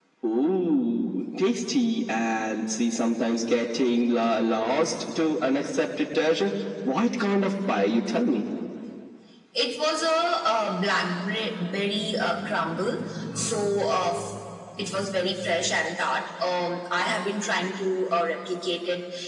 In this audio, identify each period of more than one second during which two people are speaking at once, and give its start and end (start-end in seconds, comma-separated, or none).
none